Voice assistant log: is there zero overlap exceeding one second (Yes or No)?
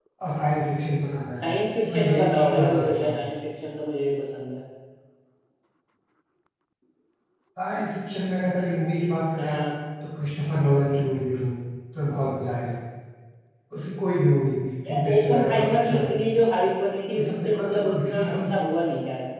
No